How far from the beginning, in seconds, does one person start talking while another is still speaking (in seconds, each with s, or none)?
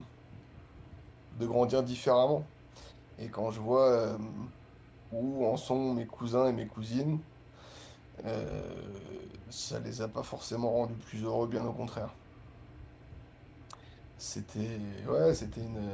none